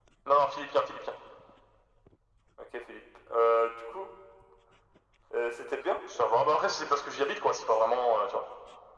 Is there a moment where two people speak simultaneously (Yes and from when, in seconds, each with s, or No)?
No